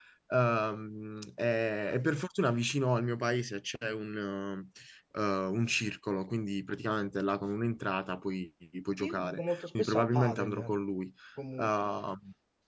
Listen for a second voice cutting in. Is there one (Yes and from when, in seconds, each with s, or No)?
Yes, from 9.0 s